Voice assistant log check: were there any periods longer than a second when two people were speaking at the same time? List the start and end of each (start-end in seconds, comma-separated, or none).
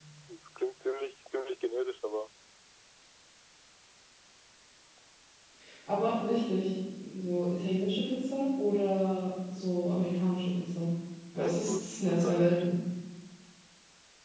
11.4-12.7